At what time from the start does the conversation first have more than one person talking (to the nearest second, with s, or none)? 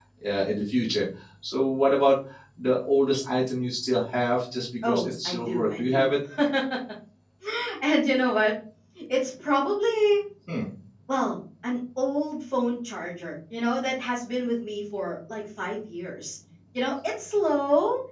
5 s